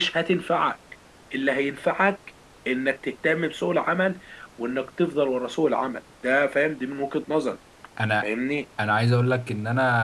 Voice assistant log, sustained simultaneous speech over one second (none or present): none